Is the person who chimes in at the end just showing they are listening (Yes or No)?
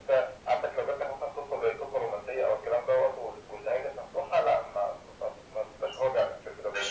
No